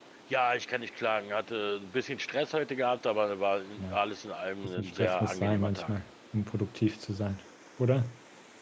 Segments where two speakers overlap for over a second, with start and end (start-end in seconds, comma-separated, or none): 4.8-6.0